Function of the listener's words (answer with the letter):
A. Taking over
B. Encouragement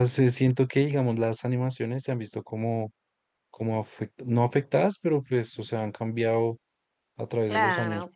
A